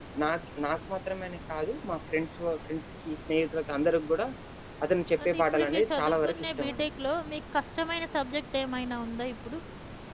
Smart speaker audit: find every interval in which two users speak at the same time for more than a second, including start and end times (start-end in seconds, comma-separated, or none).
5.2-6.8